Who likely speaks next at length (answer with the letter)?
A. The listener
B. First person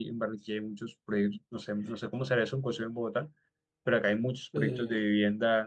B